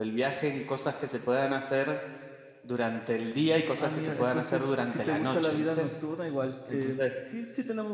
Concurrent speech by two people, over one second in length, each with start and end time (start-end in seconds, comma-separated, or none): 3.8-5.9